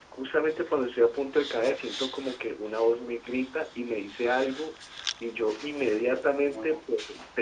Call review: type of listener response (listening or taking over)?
listening